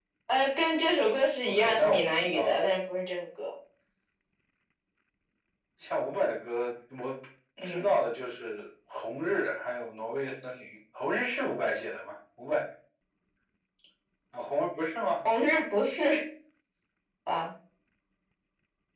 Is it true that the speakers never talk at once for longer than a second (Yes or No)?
No